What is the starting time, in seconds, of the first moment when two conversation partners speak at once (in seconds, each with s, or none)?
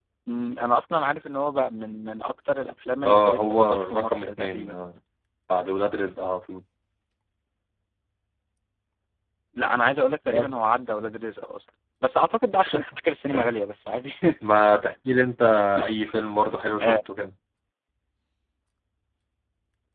3.0 s